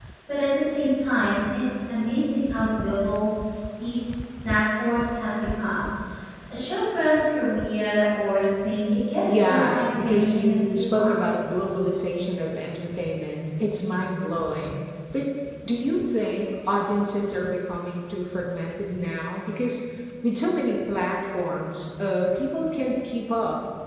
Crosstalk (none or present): present